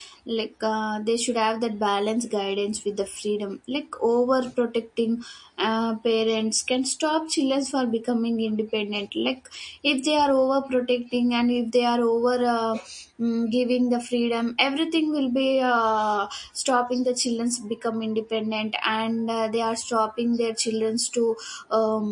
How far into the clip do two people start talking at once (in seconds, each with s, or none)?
none